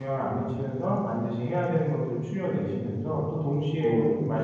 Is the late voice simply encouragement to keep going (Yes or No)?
Yes